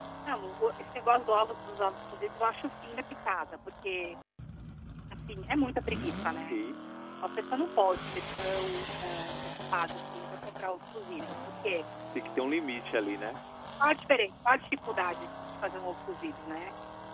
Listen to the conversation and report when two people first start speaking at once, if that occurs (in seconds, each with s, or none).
none